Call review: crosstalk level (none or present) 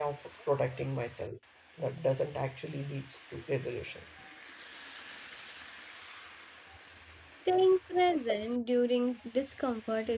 none